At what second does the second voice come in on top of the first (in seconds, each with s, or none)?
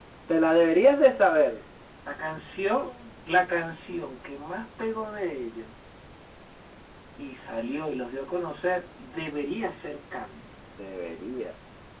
none